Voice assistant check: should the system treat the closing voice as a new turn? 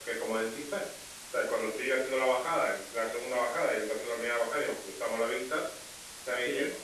No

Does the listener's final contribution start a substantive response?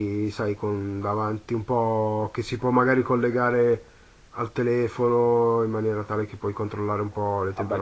Yes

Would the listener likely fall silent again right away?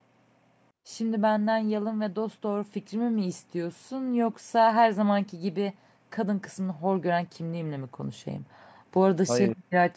Yes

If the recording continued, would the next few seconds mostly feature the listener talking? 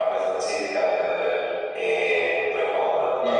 Yes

